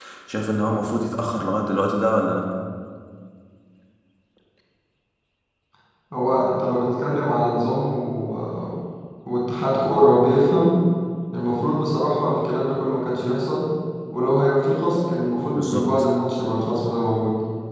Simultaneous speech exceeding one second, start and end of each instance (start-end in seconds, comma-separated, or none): none